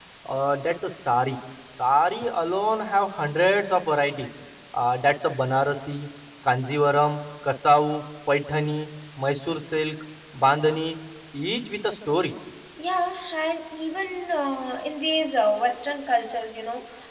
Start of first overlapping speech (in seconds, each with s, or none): none